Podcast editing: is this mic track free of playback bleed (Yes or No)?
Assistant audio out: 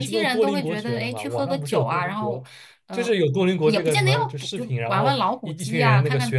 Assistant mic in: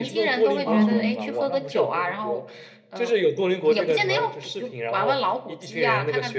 No